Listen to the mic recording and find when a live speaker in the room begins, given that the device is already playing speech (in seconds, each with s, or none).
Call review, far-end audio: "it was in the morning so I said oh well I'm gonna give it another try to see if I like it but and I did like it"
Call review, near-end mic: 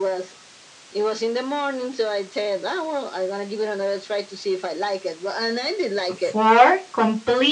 6.1 s